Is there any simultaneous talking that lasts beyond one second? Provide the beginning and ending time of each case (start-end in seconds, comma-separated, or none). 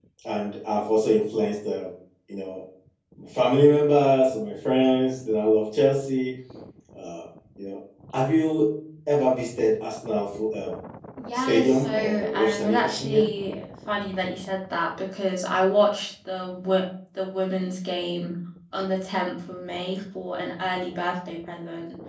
11.3-13.3